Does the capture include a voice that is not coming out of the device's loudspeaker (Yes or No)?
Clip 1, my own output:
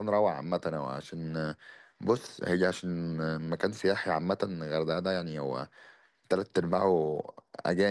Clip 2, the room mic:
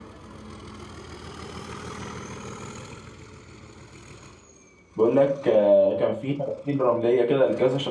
Yes